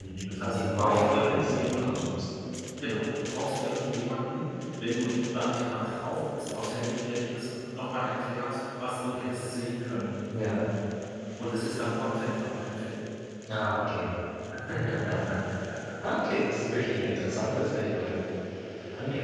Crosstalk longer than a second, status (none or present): present